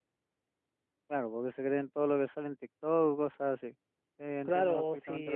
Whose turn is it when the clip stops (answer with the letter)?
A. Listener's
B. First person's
A